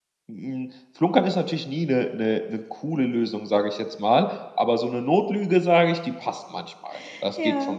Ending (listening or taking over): taking over